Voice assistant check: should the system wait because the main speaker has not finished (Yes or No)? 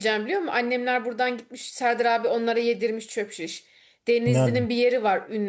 Yes